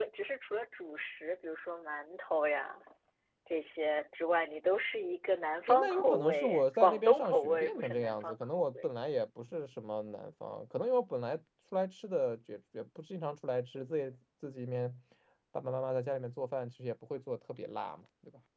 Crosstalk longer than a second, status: present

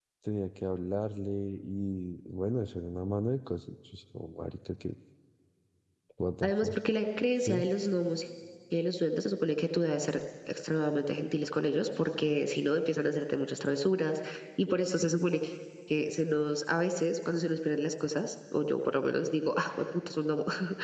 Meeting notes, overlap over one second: none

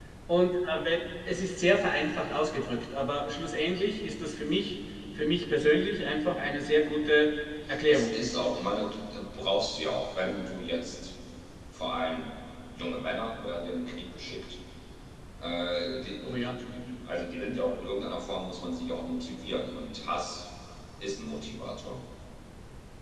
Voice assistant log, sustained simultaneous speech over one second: none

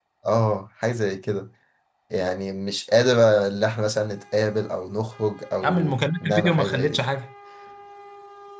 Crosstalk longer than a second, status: present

